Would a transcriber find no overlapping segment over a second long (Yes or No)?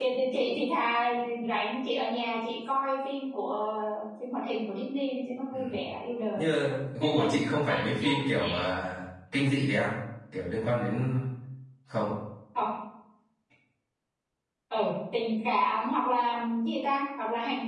Yes